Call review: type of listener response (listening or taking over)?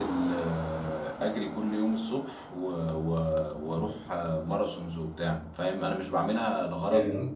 listening